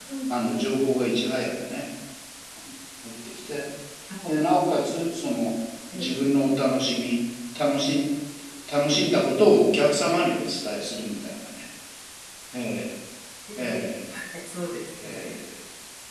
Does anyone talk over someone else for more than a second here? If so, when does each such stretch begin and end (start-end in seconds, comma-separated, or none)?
none